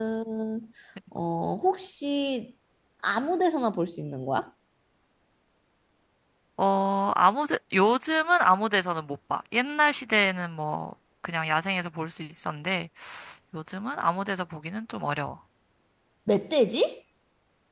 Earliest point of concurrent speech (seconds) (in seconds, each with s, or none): none